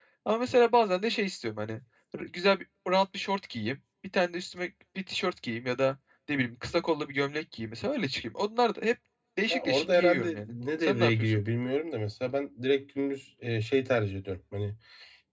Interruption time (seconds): 9.5 s

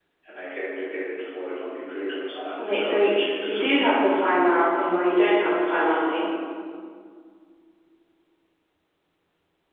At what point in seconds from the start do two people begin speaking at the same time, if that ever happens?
2.6 s

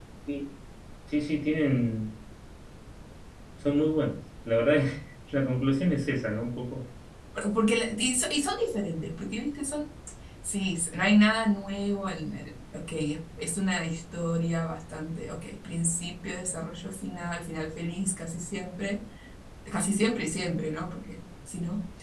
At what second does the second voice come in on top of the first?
none

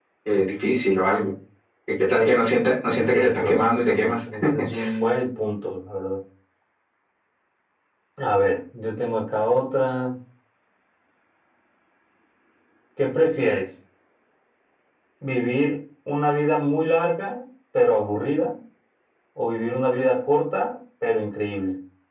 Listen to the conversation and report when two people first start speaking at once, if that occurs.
2.9 s

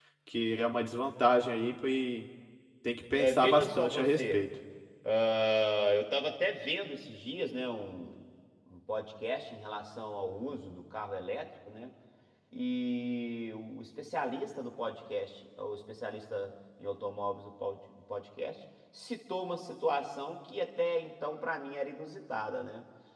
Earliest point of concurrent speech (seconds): 3.2 s

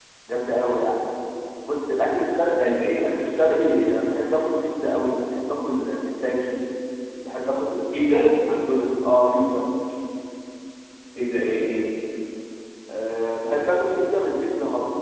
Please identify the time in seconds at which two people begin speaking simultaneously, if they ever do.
none

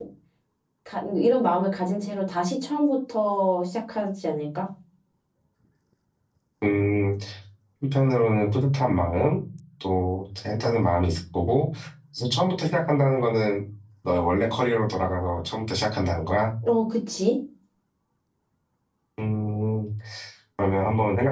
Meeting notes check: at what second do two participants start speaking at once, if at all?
none

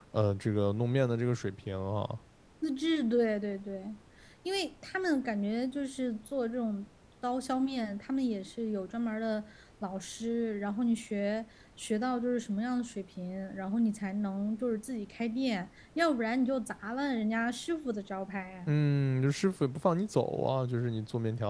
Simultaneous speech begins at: none

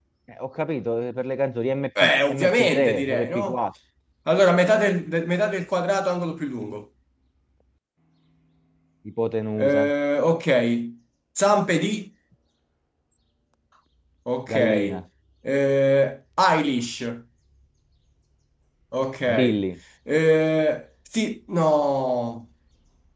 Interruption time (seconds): 2.0 s

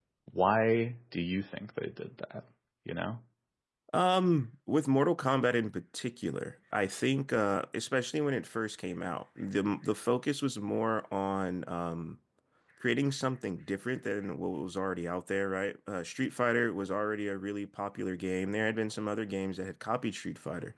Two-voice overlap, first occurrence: none

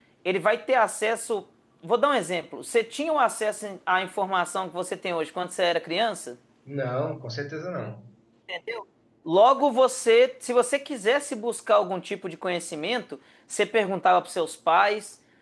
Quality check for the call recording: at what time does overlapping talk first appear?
none

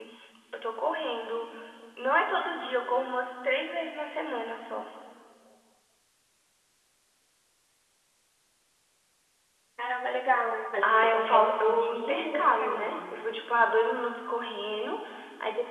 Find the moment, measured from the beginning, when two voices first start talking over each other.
10.8 s

